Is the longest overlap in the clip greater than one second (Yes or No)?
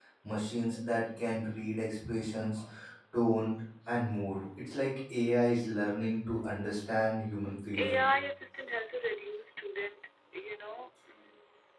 No